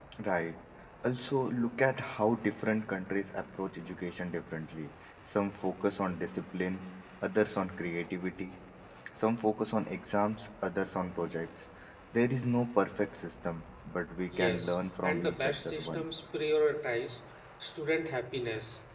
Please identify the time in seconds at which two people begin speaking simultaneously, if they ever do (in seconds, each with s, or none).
14.3 s